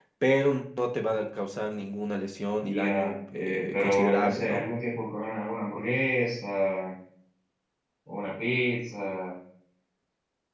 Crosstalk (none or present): present